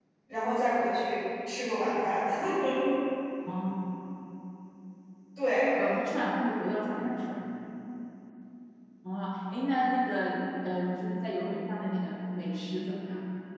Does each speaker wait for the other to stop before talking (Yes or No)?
Yes